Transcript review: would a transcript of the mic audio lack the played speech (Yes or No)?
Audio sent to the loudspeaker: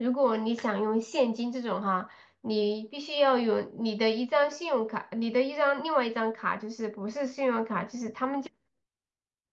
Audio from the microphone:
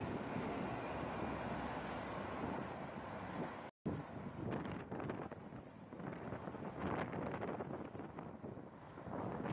Yes